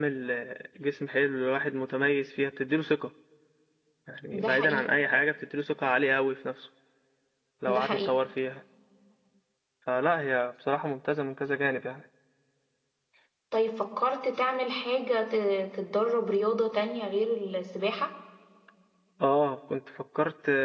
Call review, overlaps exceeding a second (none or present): none